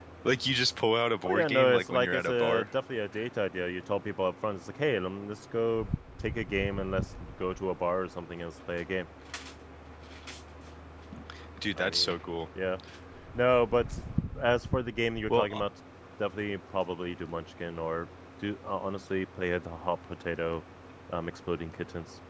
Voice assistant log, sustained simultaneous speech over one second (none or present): present